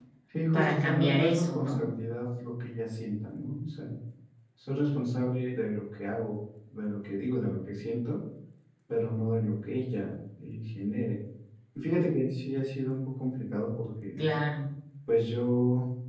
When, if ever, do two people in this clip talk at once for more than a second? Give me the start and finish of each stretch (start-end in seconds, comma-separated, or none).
0.5-1.8